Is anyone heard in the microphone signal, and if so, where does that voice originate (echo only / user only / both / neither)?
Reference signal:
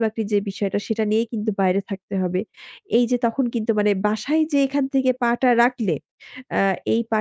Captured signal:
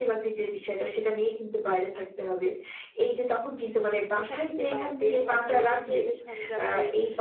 both